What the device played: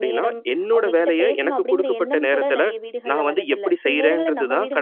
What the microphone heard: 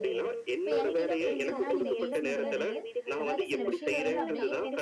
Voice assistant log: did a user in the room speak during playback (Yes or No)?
Yes